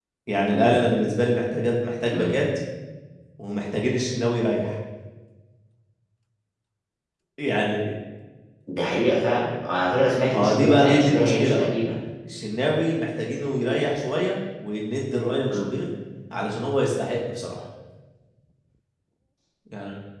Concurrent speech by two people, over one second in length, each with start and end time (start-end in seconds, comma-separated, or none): 10.3-11.7